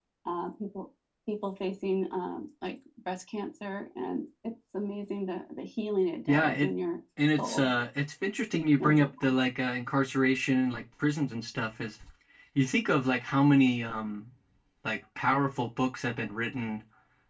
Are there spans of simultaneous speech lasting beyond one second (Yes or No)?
No